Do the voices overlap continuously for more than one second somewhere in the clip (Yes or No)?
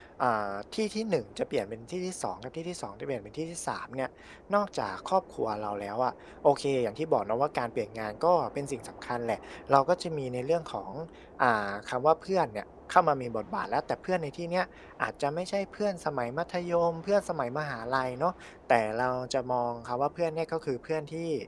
No